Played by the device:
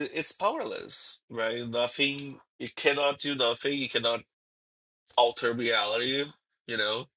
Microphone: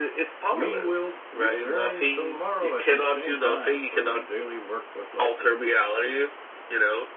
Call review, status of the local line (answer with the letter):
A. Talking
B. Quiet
A